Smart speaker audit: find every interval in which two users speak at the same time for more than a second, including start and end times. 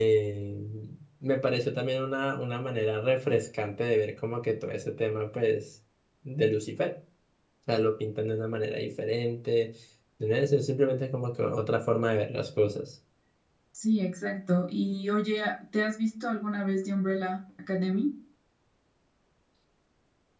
none

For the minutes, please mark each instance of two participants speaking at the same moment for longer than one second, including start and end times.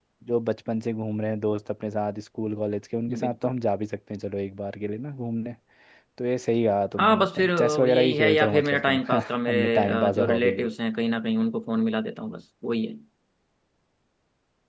7.0-10.7

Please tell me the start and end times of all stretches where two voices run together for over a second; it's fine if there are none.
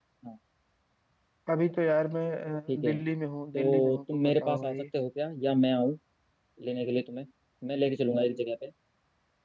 3.5-4.8

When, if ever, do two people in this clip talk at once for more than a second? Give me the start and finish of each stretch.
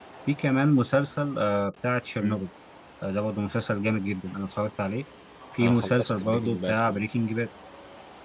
5.6-7.0

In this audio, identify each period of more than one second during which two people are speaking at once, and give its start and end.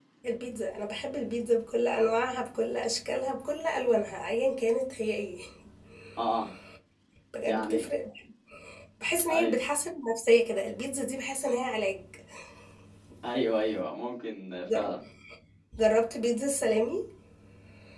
none

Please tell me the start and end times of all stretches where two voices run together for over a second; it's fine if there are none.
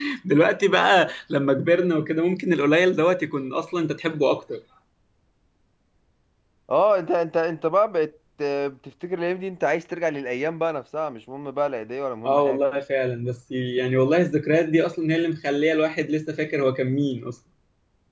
none

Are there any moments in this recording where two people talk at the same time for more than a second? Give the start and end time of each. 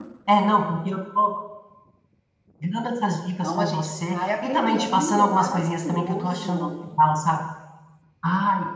3.4-6.7

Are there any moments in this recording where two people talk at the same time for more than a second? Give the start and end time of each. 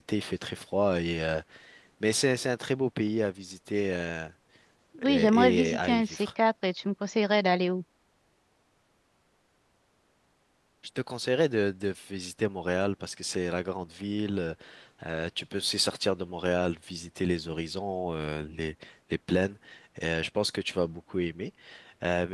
5.0-6.3

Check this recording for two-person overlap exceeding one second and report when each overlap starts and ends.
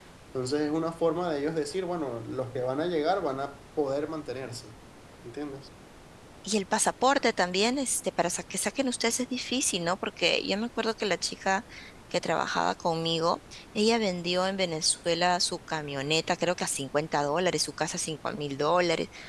none

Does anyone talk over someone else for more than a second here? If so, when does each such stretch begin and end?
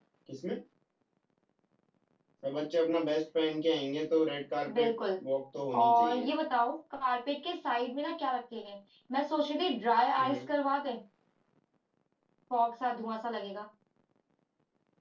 none

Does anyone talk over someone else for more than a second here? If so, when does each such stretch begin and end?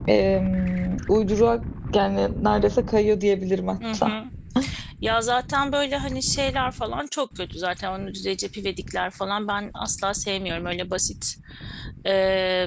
none

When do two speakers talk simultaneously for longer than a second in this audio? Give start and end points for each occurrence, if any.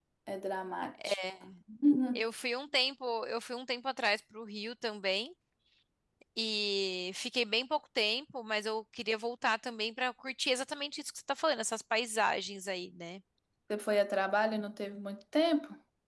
none

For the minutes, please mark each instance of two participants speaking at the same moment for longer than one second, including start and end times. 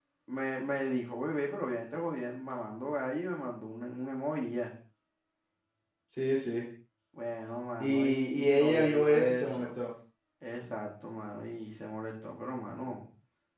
7.8-9.8

